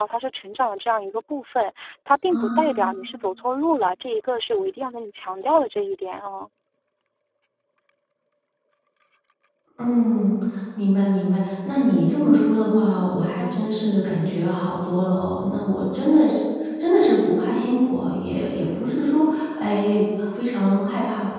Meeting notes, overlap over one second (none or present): none